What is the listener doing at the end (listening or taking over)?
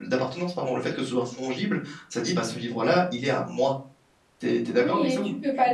taking over